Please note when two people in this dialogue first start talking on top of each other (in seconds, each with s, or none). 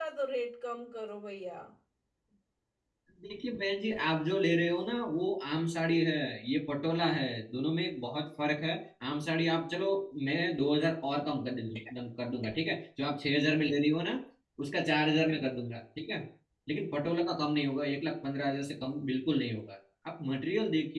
none